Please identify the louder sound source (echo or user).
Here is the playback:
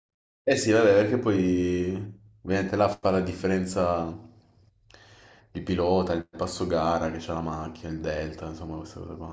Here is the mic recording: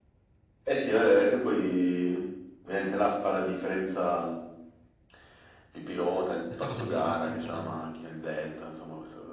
echo